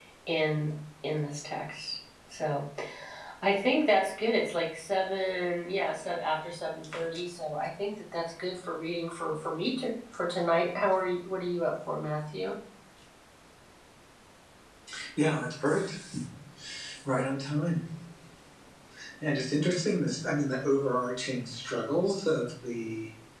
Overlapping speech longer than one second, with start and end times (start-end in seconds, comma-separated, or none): none